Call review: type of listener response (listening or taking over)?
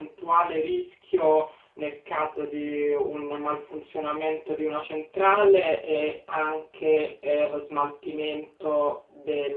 listening